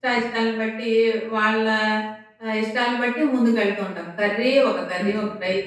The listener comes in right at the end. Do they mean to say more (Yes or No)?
No